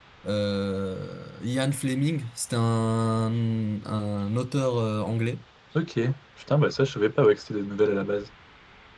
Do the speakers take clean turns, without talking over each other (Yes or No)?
Yes